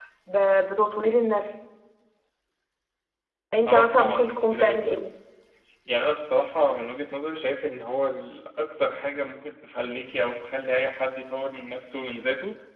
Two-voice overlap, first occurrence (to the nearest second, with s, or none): 4 s